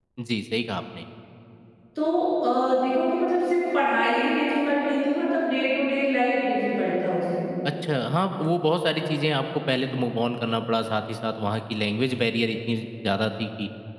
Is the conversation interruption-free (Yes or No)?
Yes